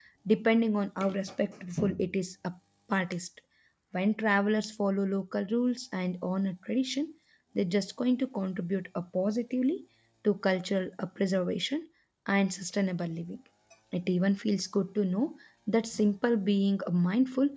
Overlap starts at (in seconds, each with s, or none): none